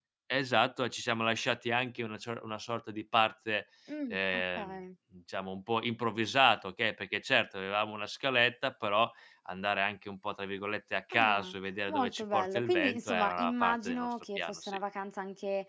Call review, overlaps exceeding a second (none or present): present